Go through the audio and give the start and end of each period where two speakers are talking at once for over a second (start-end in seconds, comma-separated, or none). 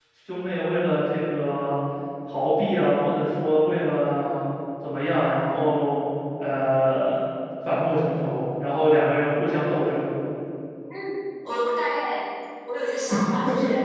none